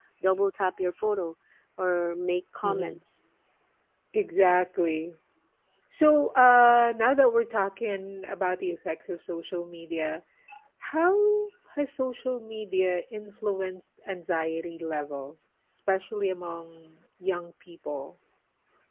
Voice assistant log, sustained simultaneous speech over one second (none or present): none